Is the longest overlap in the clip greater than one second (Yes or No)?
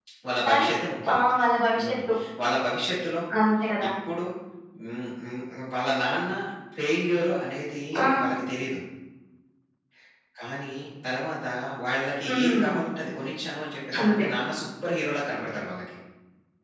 No